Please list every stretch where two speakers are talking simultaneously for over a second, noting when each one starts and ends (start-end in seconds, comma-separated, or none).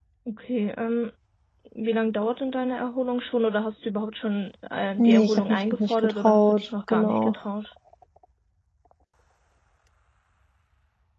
5.0-7.4